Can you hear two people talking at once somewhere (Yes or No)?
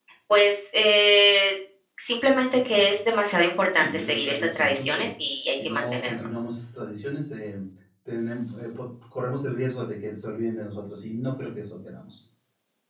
Yes